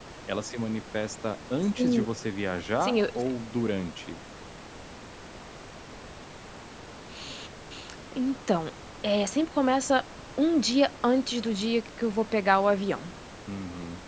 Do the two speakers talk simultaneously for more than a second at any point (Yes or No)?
No